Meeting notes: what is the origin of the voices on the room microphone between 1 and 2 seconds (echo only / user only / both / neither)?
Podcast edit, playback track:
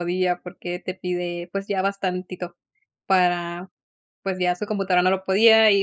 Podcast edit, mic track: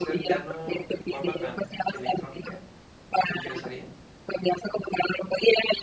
both